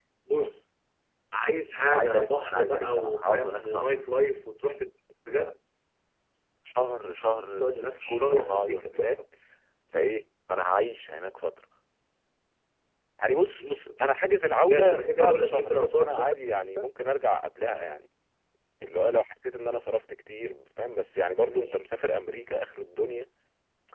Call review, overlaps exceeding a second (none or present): present